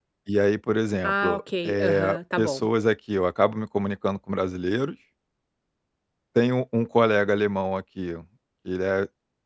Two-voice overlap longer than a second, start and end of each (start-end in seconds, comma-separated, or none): 1.0-2.7